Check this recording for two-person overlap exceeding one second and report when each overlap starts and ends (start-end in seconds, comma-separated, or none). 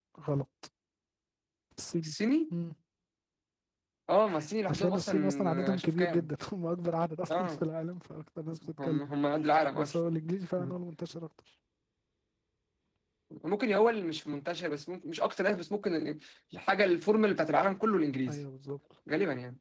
4.7-6.3